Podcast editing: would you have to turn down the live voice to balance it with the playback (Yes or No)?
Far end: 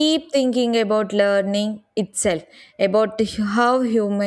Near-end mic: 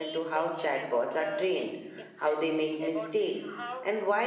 Yes